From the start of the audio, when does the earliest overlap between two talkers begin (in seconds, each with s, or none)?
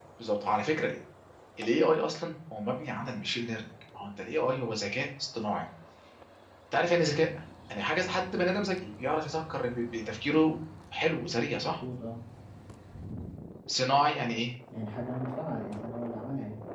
none